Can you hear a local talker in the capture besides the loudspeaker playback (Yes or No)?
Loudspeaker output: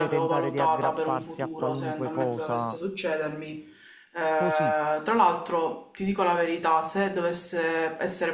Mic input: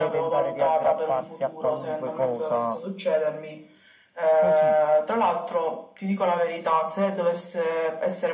No